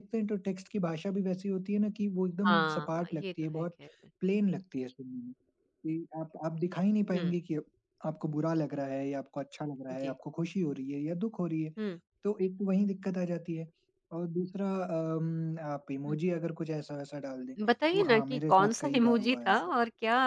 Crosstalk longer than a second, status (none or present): present